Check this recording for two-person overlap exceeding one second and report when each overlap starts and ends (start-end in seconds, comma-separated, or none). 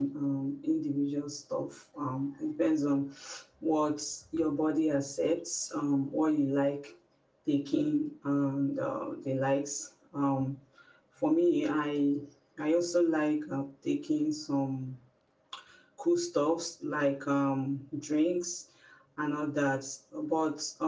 none